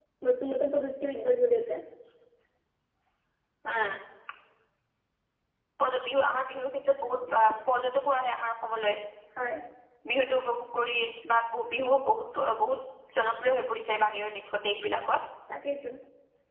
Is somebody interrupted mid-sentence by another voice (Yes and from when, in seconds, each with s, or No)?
No